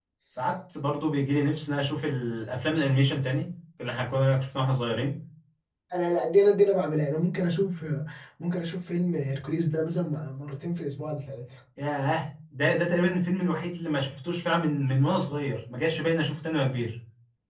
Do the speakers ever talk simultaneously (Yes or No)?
No